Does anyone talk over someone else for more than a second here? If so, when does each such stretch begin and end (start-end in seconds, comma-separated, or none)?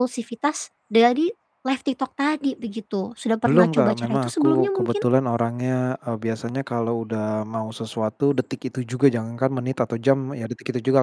3.5-5.0